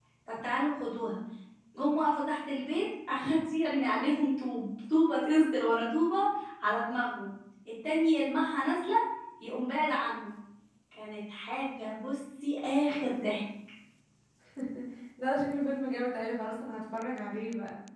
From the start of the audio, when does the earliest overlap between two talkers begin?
none

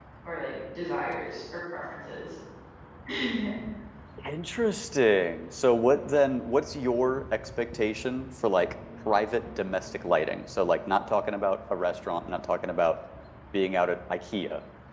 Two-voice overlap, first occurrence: none

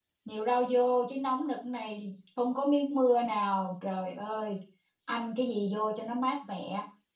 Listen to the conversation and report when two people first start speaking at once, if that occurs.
none

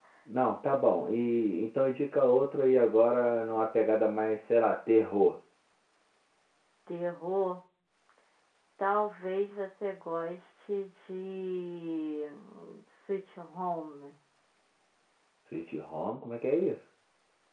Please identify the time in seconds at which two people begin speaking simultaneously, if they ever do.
none

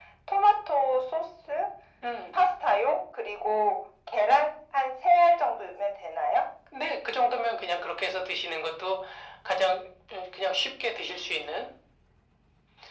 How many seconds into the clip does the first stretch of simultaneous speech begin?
none

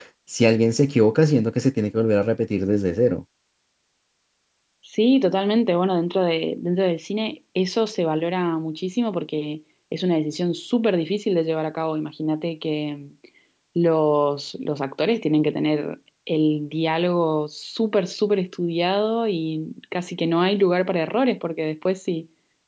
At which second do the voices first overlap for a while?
none

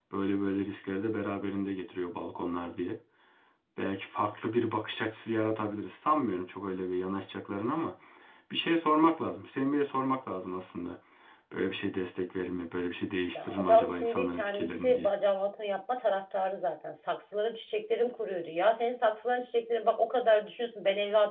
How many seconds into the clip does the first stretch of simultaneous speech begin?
13.3 s

